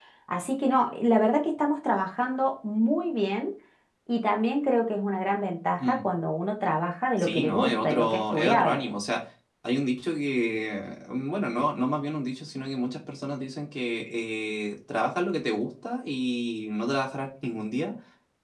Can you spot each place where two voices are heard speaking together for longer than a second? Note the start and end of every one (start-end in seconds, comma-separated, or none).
7.2-8.8